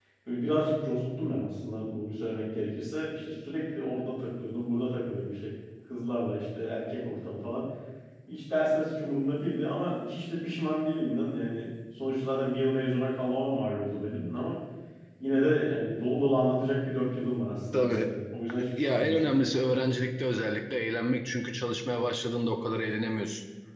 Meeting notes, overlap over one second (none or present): none